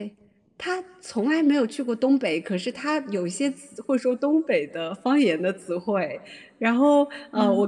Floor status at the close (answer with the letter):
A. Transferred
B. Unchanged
B